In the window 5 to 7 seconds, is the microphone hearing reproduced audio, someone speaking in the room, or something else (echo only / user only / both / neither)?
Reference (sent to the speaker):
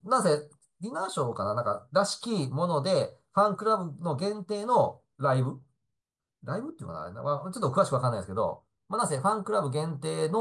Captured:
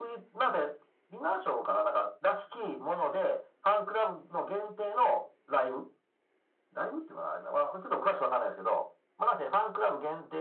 echo only